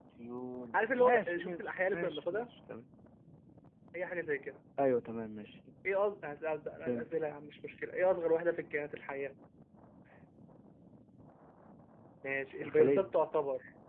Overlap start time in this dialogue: 0.7 s

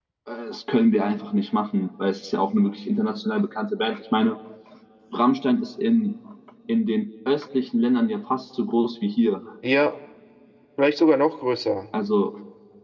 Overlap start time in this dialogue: none

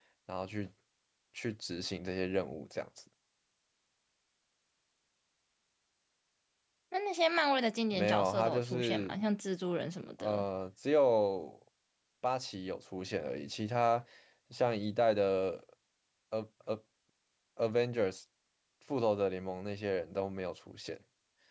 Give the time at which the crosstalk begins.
7.9 s

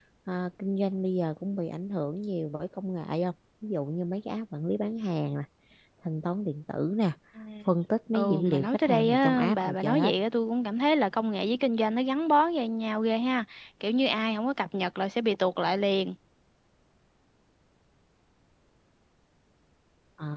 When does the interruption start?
8.1 s

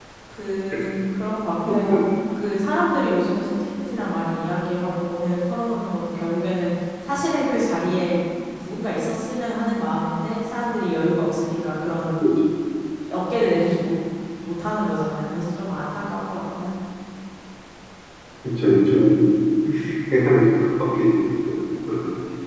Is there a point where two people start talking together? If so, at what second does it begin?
none

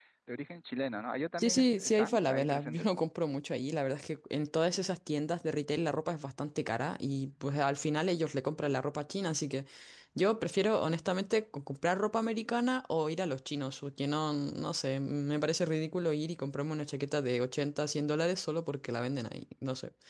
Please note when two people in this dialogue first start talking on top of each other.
1.4 s

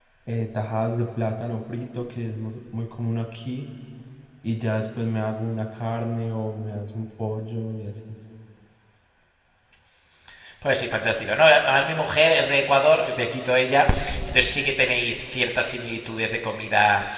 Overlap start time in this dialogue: none

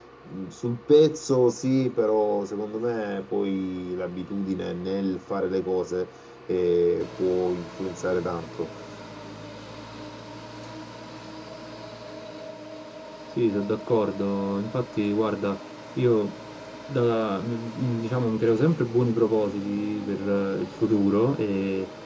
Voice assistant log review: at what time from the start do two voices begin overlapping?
none

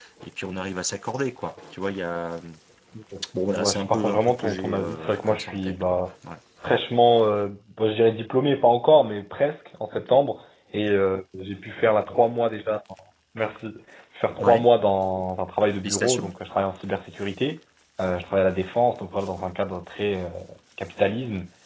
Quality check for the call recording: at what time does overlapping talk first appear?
3.5 s

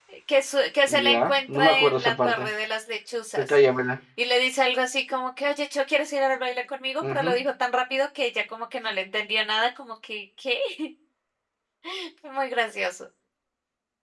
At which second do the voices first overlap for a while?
0.9 s

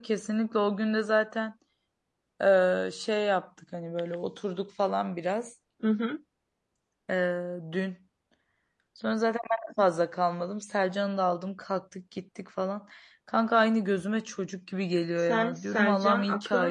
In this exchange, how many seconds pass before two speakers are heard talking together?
15.2 s

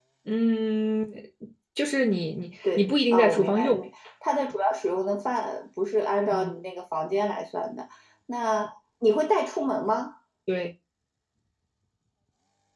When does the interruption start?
2.6 s

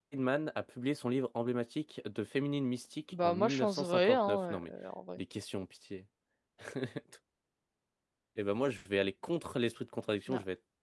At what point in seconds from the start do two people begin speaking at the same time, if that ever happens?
3.1 s

